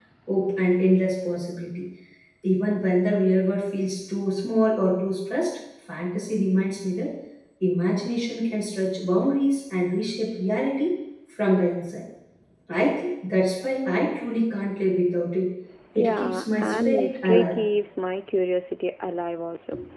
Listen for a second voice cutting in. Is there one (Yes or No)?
Yes